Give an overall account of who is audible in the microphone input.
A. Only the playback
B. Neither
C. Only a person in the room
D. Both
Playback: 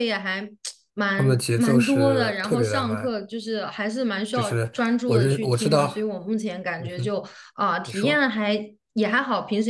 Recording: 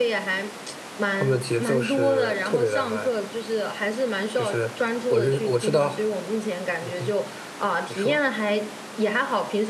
A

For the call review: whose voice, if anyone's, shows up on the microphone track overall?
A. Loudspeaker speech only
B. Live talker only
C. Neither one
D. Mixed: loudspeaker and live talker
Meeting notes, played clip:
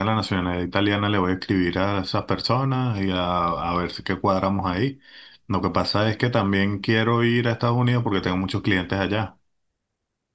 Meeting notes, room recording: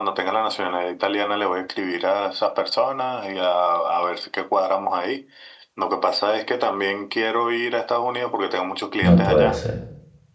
D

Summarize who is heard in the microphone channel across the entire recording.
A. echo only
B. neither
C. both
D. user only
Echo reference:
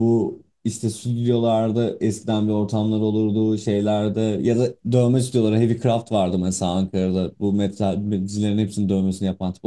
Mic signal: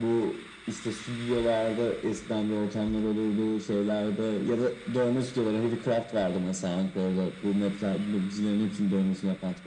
A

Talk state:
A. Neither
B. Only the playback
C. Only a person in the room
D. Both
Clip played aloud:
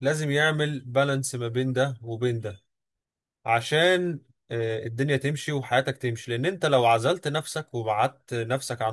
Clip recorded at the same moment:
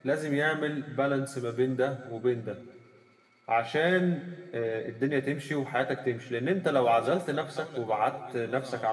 D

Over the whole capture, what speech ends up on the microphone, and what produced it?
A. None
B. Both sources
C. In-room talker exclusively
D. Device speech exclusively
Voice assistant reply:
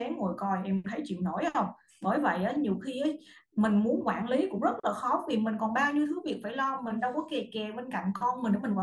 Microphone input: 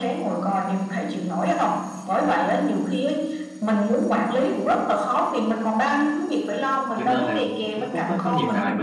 B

